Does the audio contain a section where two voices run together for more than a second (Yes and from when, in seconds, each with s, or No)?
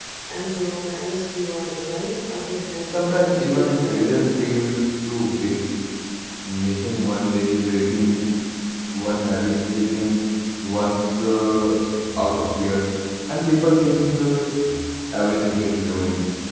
Yes, from 2.9 s